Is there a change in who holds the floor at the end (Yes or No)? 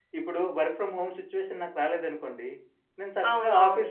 No